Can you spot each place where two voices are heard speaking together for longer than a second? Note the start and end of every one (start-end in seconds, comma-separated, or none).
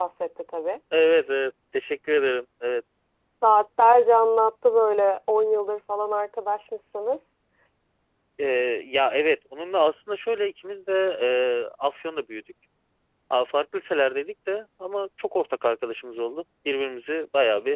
none